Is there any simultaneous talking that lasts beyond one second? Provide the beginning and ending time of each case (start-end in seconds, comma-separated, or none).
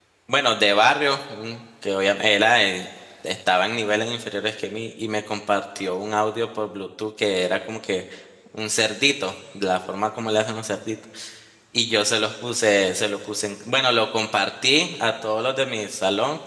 none